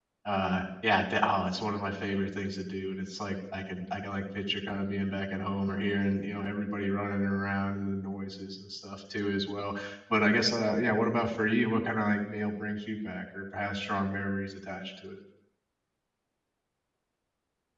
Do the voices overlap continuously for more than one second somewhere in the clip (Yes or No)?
No